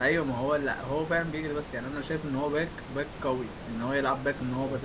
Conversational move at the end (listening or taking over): listening